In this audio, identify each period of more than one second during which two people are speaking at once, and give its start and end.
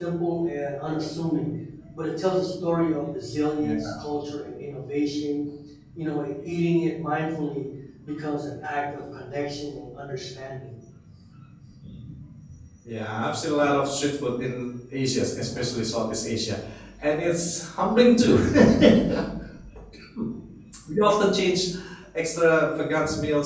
none

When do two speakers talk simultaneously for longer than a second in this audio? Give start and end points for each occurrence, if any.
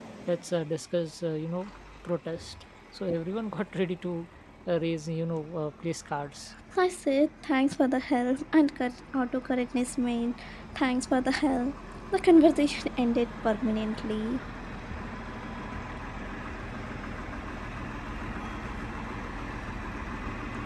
none

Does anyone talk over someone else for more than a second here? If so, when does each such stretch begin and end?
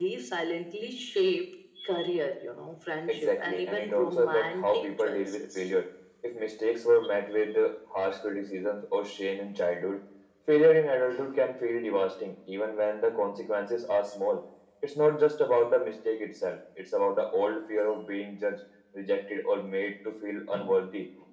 3.1-5.6

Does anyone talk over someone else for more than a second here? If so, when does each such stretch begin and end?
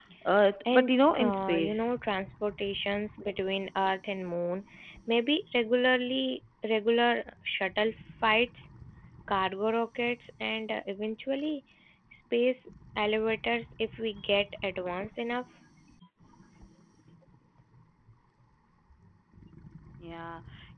0.7-1.9

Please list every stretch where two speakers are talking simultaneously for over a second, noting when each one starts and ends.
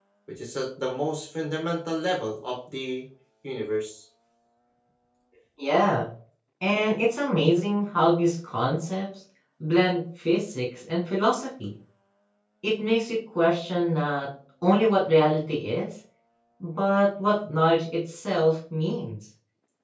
none

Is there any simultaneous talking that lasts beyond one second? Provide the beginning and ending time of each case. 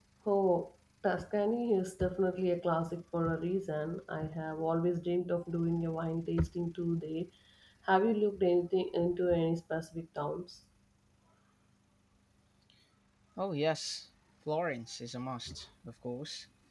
none

